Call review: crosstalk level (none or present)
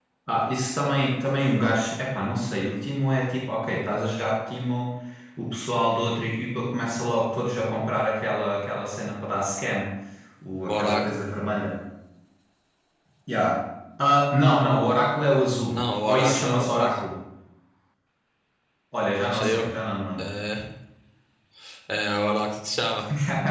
present